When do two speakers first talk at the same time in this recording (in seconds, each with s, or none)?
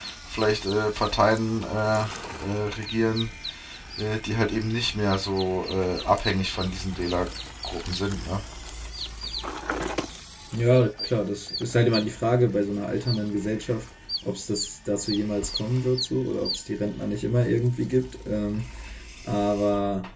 none